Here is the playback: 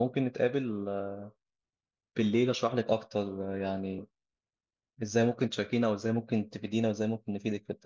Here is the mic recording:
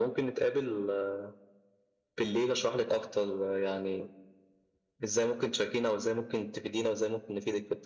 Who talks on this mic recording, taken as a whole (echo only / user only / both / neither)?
echo only